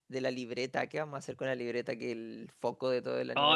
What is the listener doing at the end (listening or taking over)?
taking over